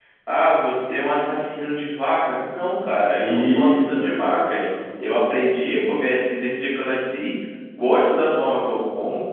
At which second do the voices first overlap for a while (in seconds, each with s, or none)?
3.2 s